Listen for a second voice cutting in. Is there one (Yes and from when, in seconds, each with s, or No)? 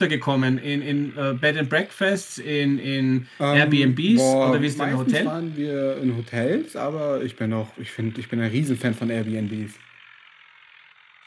Yes, from 3.4 s